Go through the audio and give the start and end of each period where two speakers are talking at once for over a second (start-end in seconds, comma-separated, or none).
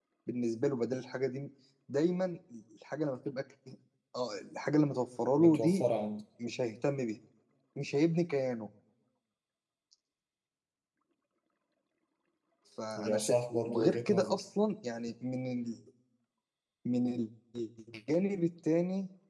13.0-14.4